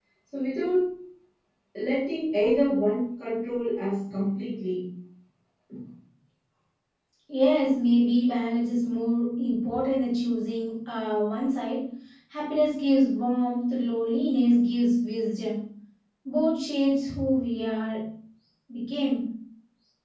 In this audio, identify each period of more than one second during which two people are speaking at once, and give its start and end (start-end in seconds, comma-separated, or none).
none